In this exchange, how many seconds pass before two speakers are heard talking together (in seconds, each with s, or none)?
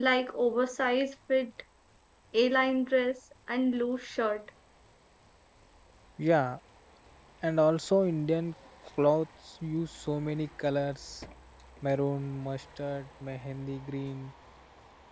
none